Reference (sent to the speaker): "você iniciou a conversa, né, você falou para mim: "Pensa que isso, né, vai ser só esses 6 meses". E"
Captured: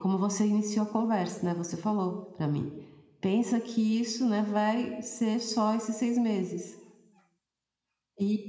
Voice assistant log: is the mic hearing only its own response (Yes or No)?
Yes